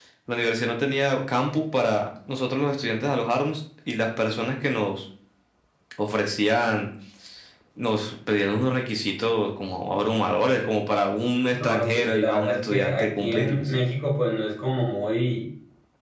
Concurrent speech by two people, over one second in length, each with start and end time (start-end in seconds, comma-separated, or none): 11.6-13.7